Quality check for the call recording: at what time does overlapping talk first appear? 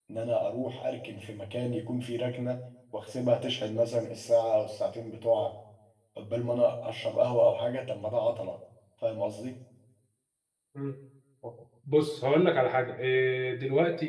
none

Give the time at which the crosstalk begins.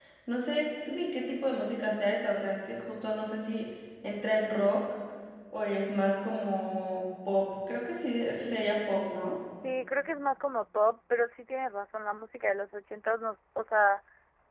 none

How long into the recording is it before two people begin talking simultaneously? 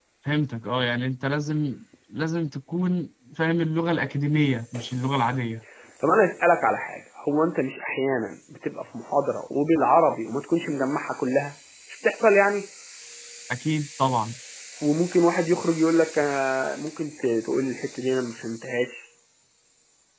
none

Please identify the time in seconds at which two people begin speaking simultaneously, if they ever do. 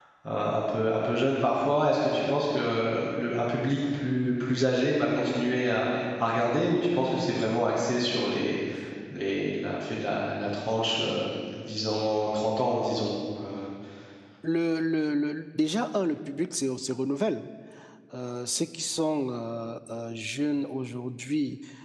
none

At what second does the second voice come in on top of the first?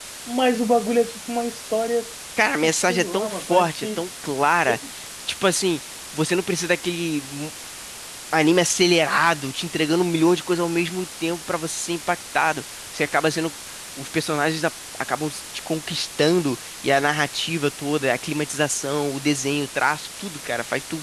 2.6 s

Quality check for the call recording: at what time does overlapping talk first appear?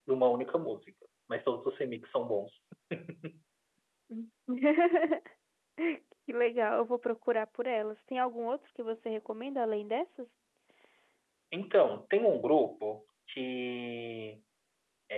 none

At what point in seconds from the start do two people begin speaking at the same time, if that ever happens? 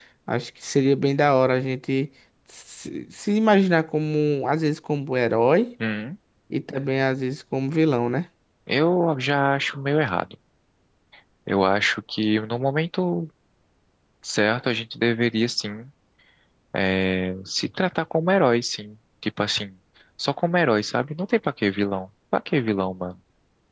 none

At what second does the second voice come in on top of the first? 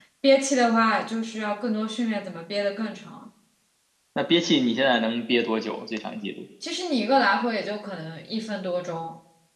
none

